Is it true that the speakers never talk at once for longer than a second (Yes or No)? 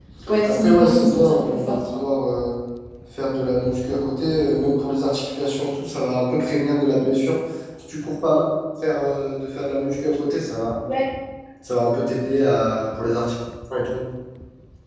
No